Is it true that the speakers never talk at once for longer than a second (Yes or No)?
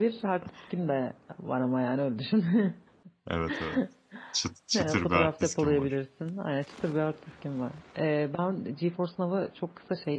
No